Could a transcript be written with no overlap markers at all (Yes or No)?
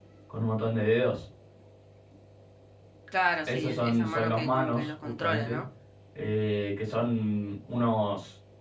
No